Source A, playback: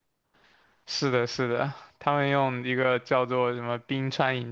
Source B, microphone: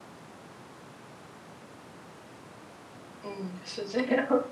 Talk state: user only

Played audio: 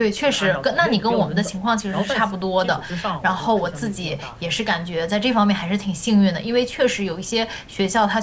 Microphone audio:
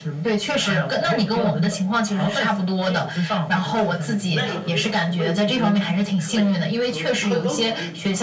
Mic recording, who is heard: both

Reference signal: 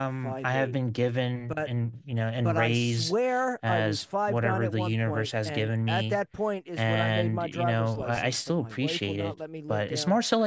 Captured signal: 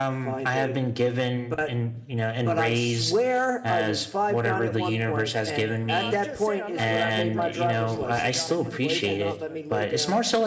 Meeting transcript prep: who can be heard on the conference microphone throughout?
both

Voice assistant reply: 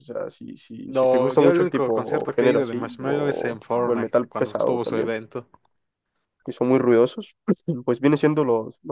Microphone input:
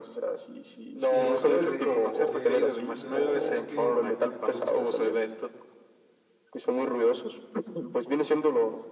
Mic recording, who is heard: both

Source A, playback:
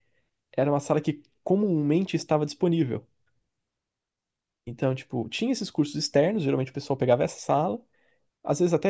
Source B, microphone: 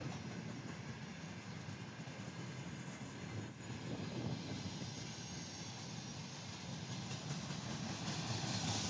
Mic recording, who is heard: neither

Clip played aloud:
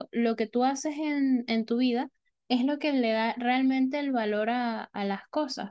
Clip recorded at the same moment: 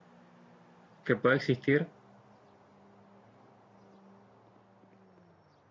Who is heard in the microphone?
user only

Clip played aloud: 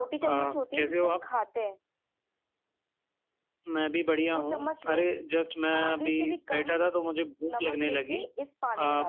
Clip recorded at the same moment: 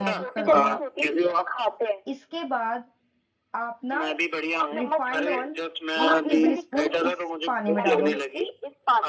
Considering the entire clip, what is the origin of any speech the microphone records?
both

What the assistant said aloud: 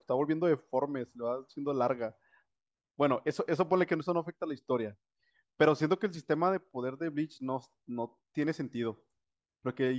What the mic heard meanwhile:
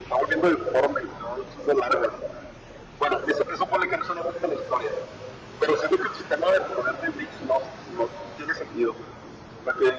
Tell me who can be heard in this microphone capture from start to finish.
echo only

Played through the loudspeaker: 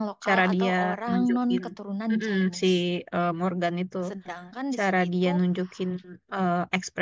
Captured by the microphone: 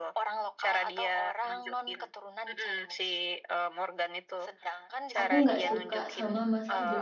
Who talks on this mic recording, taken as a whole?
both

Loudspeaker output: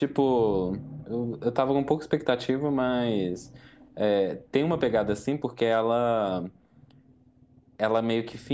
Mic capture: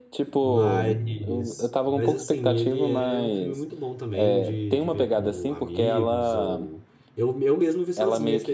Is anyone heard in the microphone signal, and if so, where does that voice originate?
both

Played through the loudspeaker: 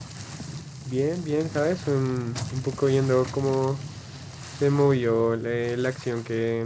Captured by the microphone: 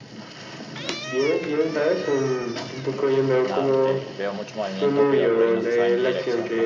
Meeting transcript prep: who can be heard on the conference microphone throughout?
both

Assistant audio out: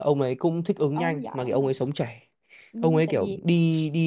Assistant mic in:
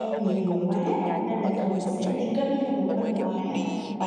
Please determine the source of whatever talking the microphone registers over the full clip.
both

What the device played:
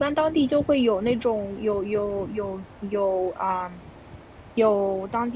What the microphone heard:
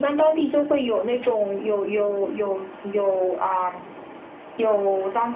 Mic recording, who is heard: echo only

